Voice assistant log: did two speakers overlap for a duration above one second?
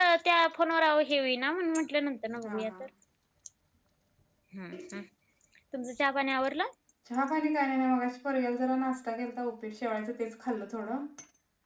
No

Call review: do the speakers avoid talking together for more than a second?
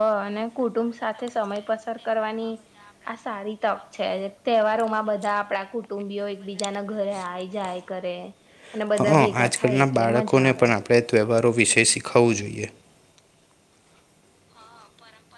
No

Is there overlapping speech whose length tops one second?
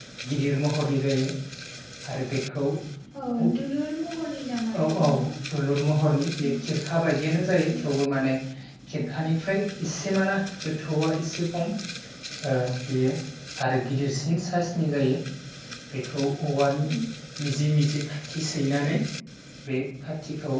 No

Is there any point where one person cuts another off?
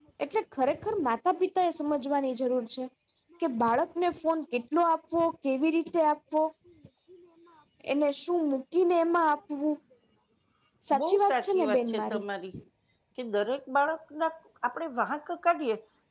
Yes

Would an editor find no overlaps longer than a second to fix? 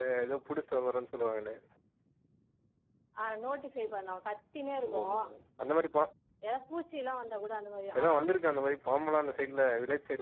Yes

